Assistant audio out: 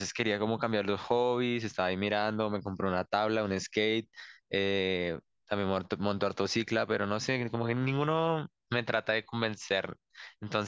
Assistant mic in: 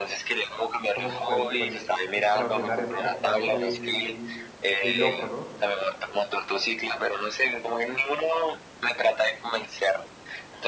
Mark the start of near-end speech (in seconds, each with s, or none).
0.9 s